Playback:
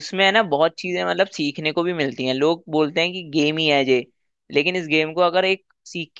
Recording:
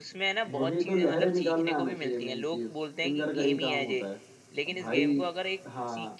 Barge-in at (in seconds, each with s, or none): 0.5 s